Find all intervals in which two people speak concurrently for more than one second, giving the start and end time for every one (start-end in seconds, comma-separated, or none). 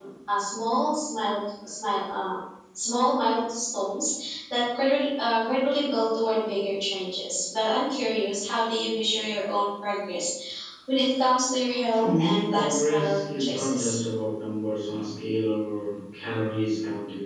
11.9-14.0